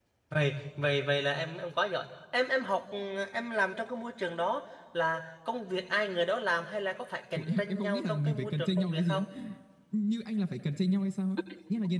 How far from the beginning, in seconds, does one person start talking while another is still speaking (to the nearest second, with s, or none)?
7 s